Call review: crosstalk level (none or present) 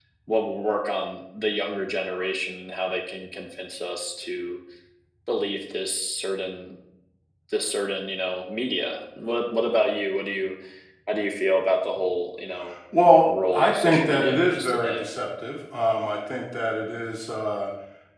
present